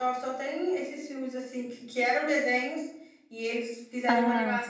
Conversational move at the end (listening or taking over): listening